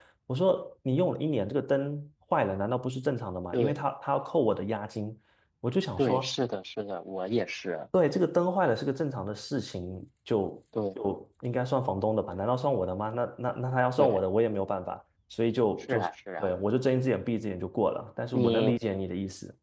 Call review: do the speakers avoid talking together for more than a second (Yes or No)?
Yes